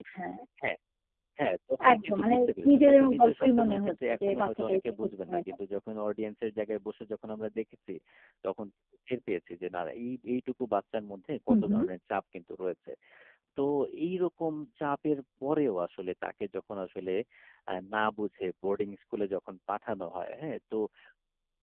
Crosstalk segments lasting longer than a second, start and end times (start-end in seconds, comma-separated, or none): 1.9-5.4